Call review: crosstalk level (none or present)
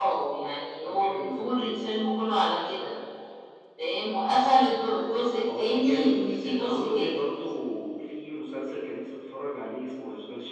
present